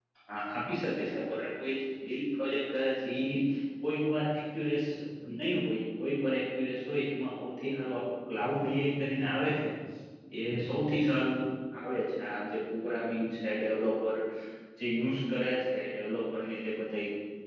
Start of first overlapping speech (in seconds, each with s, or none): none